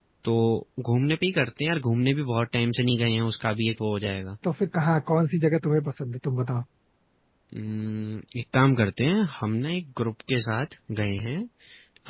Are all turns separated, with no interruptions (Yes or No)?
Yes